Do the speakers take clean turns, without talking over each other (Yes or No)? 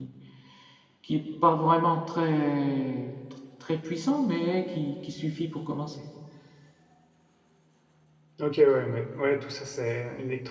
Yes